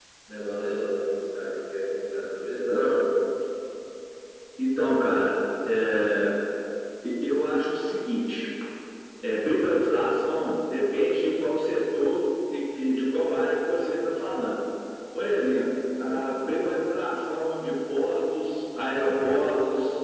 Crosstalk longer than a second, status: none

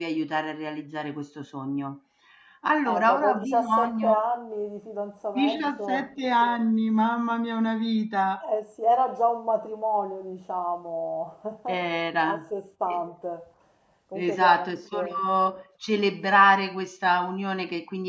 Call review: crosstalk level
present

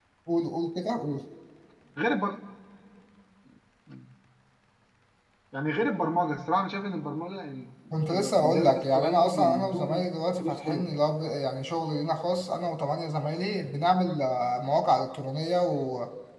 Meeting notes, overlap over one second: present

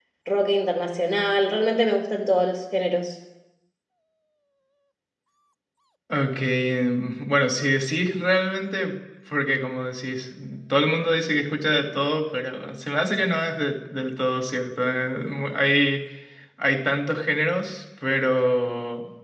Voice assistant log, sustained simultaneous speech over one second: none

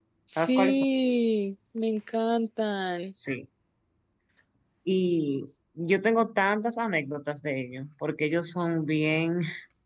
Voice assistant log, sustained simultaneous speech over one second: none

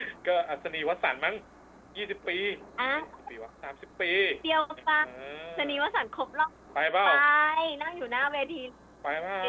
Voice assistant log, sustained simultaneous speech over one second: none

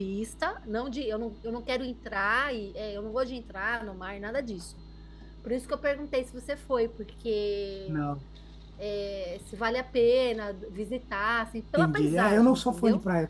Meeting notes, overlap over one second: present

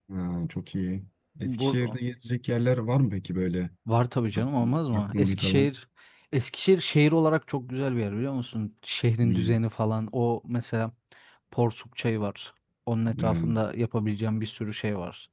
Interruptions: present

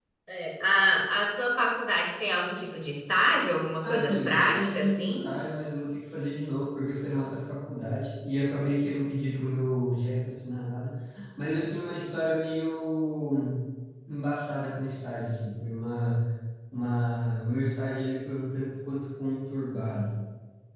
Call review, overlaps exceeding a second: present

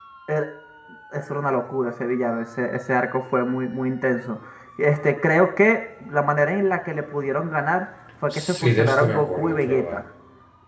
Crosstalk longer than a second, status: present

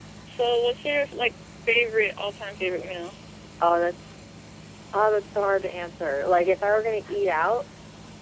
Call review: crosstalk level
none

